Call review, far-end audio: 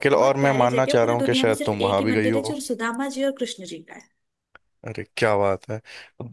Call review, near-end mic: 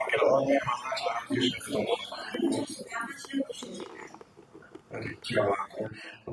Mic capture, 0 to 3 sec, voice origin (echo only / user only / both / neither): echo only